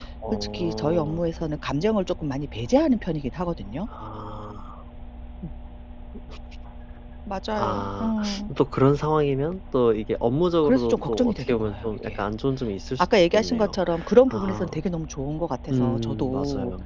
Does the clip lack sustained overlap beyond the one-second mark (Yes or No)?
No